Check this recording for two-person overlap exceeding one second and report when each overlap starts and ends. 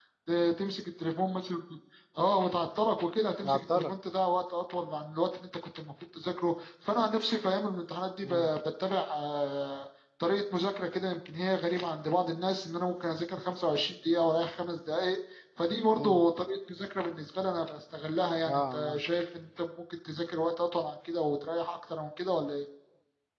none

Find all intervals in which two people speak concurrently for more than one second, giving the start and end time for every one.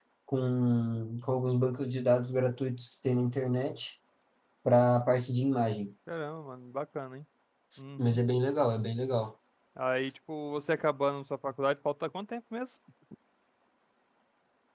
none

